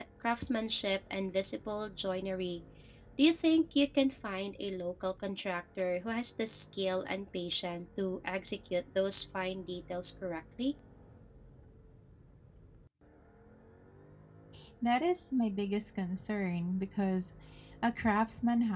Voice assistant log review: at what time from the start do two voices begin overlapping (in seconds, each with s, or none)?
none